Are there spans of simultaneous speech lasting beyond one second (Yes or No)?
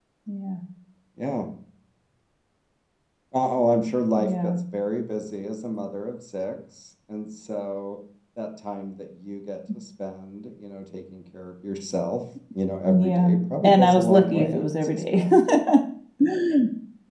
Yes